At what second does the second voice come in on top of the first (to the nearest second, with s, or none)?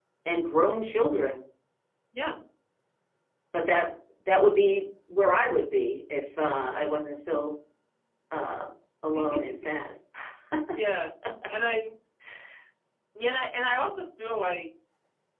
none